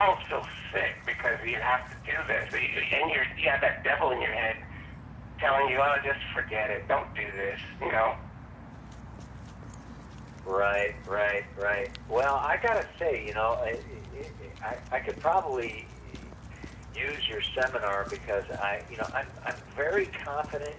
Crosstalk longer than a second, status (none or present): none